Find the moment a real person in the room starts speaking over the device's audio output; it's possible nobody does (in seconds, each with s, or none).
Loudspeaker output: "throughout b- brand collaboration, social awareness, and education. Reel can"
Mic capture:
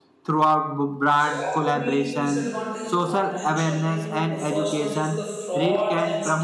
1.1 s